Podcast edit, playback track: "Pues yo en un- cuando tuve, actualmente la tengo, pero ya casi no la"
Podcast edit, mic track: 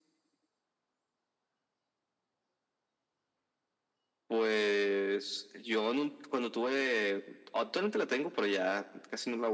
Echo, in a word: present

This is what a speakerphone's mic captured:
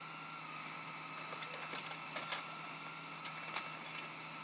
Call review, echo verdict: none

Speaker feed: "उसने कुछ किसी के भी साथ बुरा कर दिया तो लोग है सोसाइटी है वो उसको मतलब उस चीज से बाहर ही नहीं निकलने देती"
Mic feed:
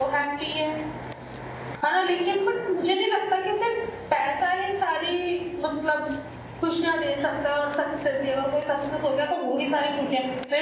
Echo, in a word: none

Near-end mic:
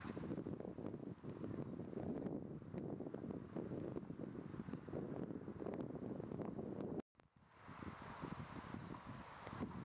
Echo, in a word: none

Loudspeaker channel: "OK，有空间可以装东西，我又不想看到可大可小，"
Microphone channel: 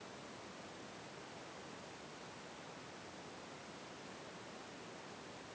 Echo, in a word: none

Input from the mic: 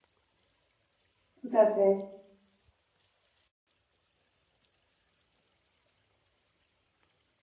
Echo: none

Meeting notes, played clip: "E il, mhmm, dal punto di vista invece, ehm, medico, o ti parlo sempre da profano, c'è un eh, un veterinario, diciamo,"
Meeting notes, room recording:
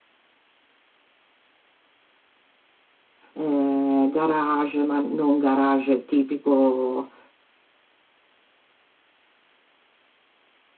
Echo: none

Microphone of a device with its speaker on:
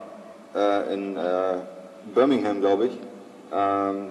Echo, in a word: present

